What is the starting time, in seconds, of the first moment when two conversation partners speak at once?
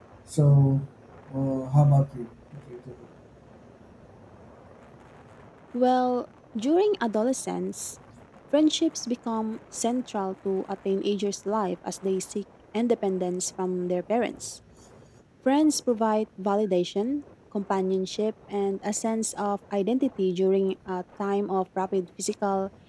none

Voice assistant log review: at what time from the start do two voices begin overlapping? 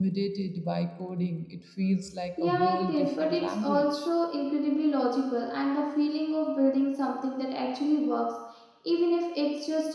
2.4 s

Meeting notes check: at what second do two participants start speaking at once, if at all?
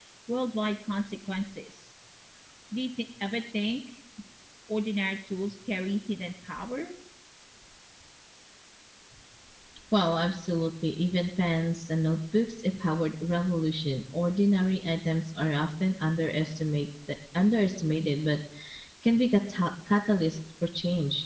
none

